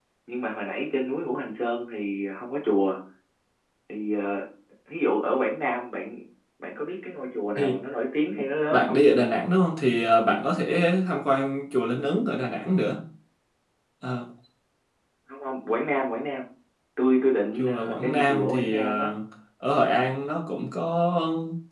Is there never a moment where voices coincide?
No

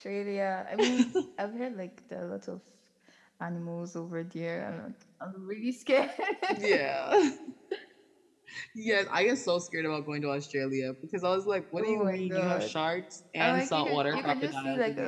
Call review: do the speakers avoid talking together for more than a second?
No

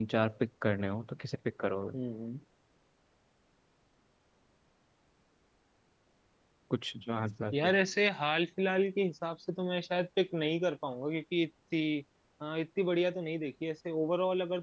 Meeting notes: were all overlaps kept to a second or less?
Yes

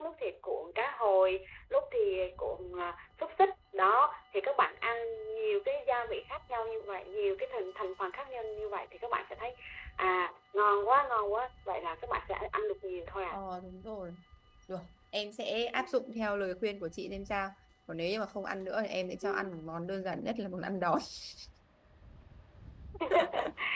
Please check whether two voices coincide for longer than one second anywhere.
No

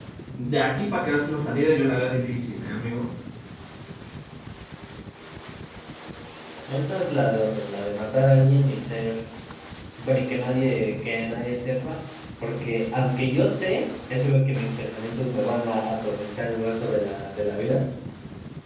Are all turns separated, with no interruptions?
Yes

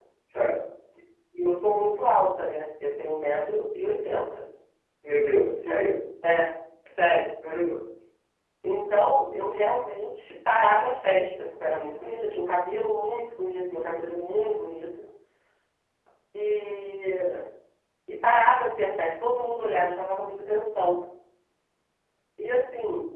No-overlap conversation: Yes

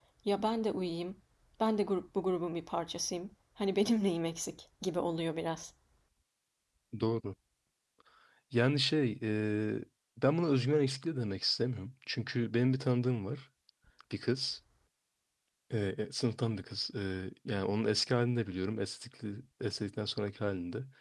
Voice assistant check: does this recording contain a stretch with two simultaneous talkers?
No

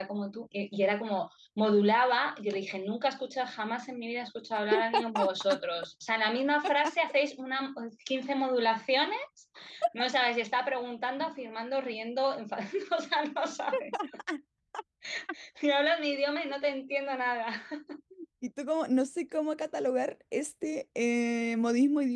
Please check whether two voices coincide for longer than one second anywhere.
No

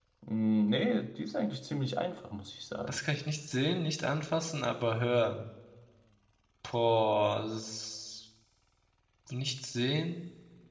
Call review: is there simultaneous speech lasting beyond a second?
No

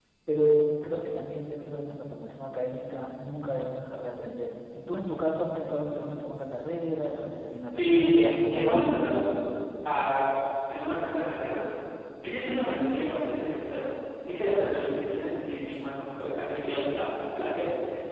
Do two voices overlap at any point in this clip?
Yes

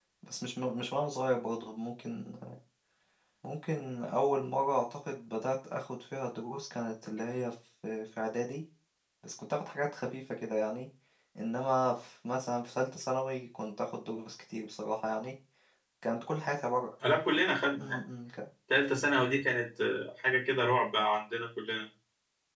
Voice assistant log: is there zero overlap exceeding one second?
Yes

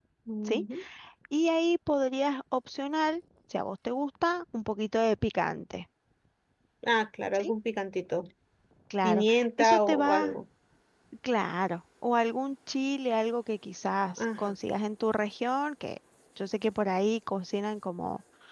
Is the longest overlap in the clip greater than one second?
Yes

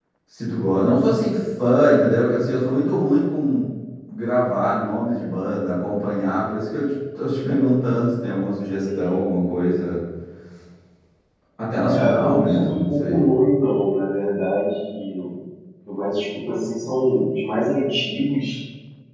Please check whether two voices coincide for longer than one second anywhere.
Yes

